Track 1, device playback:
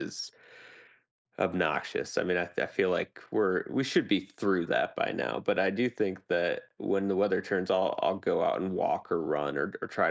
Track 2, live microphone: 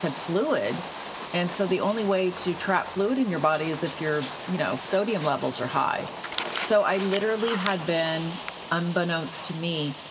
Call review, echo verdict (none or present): none